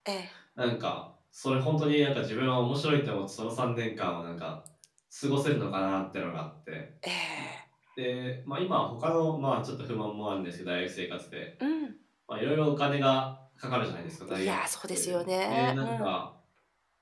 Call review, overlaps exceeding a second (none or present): present